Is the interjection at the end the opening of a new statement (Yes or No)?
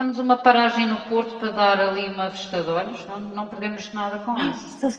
Yes